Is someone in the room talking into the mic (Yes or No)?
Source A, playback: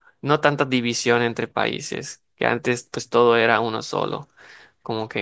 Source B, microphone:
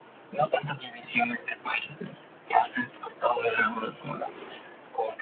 No